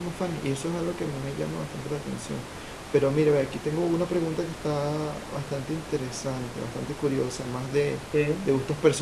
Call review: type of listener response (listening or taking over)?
listening